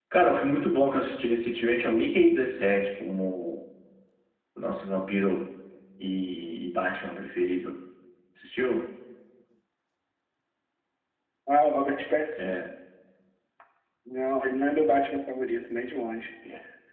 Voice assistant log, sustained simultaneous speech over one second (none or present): none